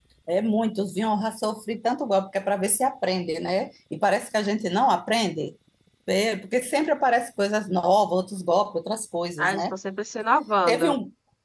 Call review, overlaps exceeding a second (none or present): none